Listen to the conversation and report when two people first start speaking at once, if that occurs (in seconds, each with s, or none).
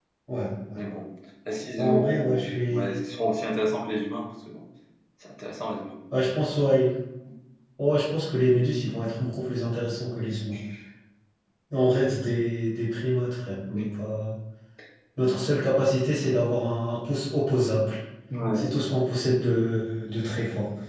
1.8 s